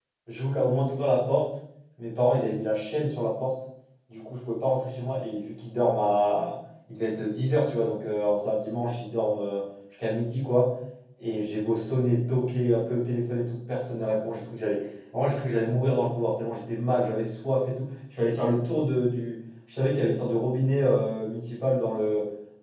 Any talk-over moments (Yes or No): No